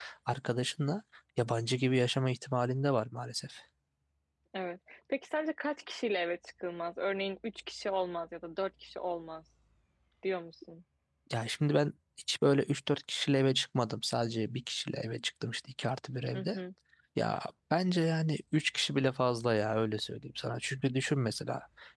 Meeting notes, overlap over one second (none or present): none